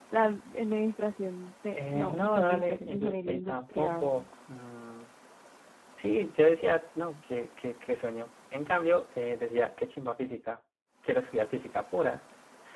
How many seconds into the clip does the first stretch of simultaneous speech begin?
1.8 s

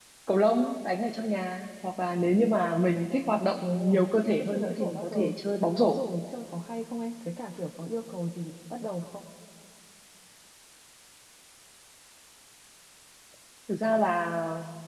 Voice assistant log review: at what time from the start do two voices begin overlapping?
3.6 s

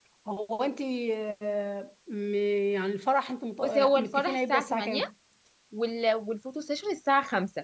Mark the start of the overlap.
3.6 s

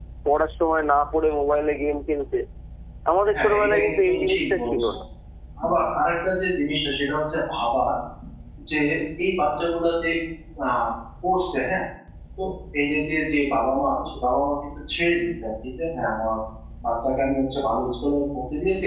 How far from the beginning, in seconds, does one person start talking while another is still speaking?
3.3 s

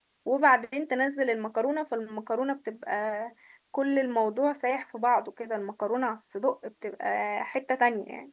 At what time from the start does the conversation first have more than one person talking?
none

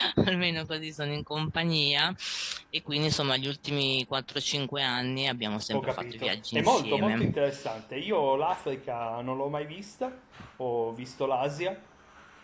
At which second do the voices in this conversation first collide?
5.7 s

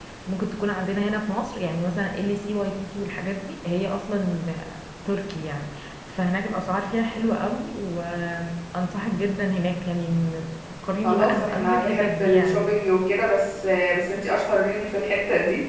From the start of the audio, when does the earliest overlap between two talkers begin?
11.0 s

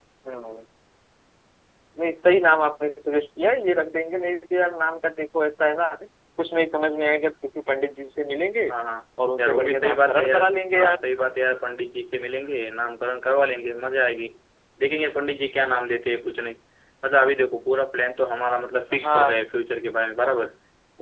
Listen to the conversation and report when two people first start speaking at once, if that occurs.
9.4 s

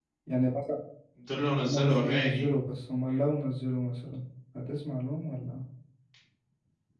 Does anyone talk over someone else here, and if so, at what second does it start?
1.3 s

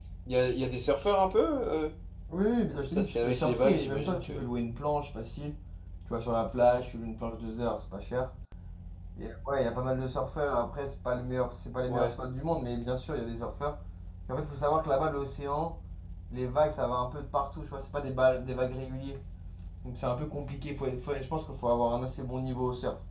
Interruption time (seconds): 2.7 s

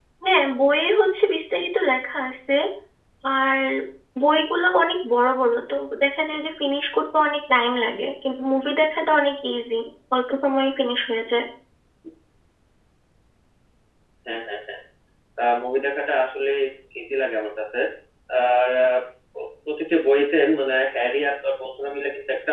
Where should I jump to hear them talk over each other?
none

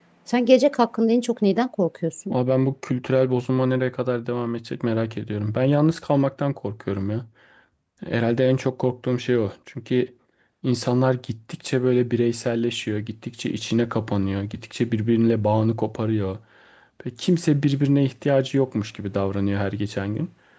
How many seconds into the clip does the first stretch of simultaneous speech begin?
none

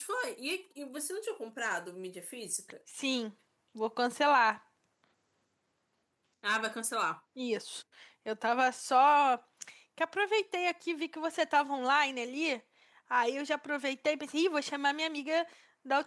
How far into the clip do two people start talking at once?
none

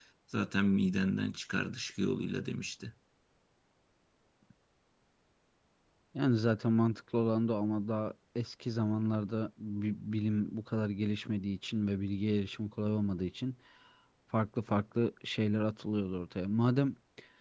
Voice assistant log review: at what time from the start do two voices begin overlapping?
none

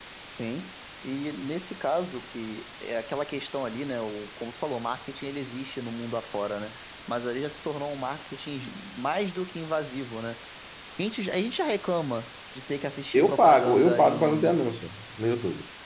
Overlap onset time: 13.1 s

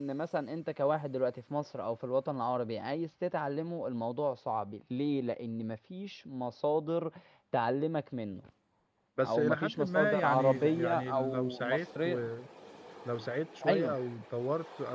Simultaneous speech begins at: 9.2 s

